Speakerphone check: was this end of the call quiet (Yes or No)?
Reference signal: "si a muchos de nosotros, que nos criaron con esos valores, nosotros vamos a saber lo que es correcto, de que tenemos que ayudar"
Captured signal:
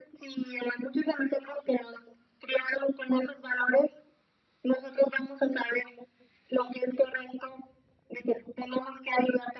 Yes